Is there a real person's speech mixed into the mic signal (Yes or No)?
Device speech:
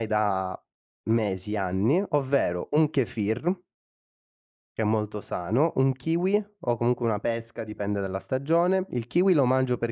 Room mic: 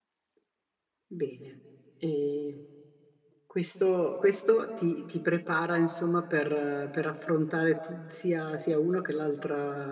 Yes